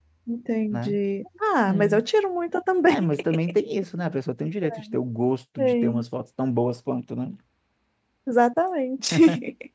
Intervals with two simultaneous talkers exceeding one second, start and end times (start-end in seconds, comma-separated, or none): none